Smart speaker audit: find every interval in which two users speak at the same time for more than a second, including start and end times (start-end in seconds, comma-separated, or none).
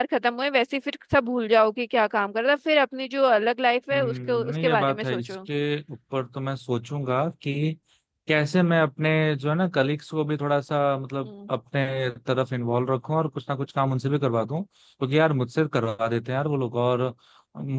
3.9-5.3